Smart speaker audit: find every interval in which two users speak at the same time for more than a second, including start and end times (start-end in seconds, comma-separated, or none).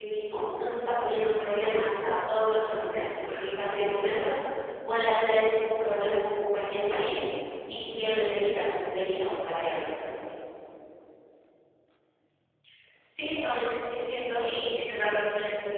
none